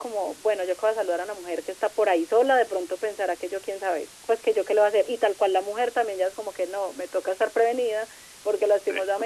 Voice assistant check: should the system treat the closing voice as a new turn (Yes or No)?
No